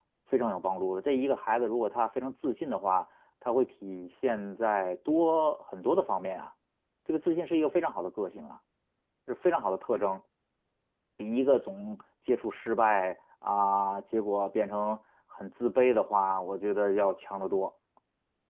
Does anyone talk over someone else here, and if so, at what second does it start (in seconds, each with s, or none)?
none